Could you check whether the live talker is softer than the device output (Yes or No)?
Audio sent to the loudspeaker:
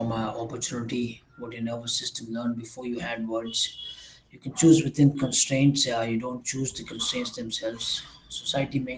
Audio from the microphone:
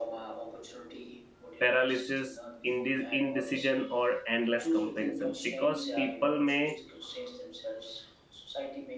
No